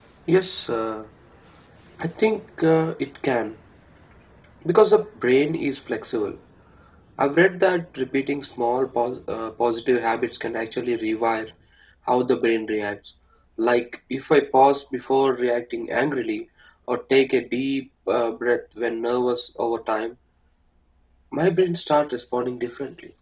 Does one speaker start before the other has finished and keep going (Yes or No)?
No